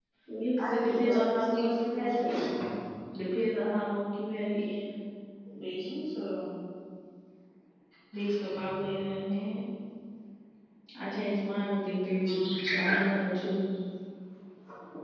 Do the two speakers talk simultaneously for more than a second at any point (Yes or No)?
Yes